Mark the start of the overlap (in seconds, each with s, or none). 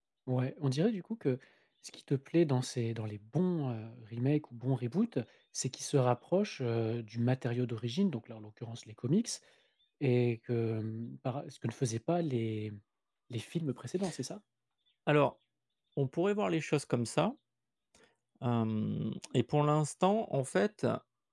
none